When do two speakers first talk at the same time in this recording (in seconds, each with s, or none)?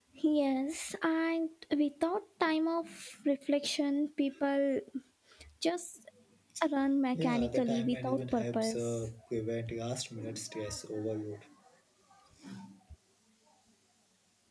7.1 s